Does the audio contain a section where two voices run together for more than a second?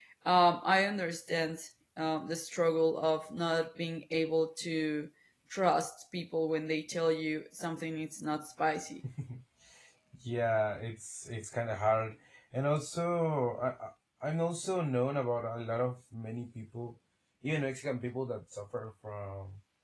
No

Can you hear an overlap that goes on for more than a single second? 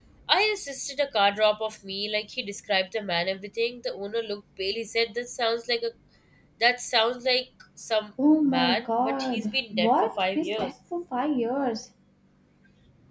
Yes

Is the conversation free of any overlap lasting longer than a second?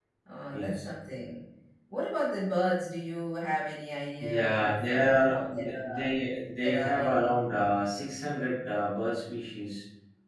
No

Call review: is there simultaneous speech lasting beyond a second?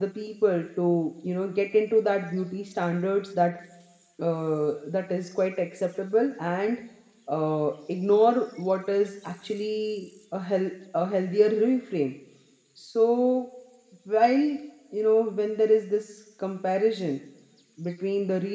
No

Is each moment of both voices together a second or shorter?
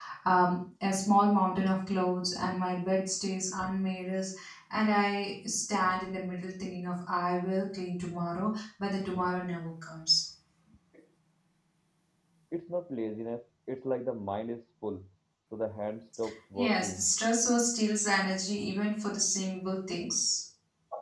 Yes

